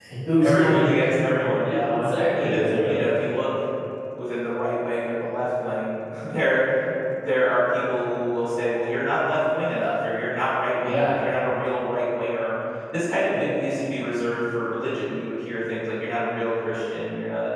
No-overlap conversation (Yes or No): No